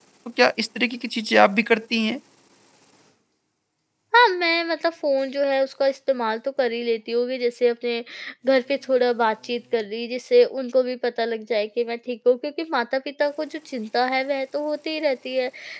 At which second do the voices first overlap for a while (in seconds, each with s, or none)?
none